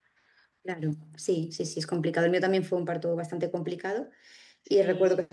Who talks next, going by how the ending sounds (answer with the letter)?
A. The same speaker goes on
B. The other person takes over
A